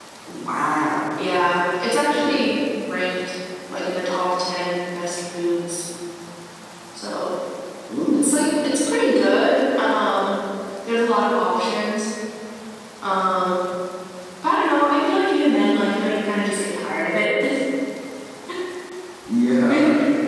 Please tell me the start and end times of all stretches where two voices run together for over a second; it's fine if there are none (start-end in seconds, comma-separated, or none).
none